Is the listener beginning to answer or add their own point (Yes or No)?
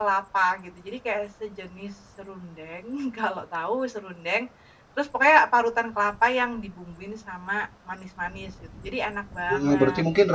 Yes